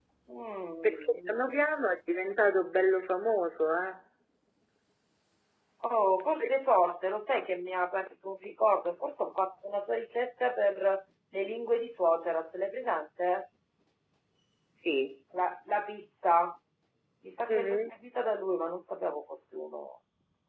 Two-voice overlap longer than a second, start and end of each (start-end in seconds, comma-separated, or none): none